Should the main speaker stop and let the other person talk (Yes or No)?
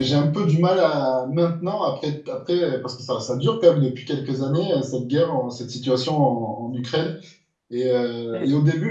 Yes